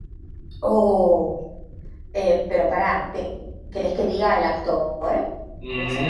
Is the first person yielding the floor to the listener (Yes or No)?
Yes